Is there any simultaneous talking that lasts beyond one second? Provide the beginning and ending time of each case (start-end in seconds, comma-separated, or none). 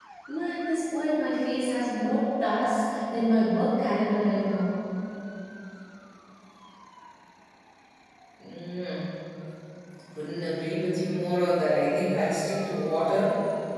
none